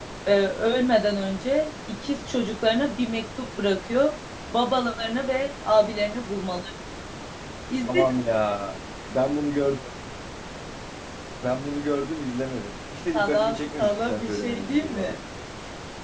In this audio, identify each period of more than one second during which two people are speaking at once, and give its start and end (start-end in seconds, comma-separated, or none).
13.1-15.2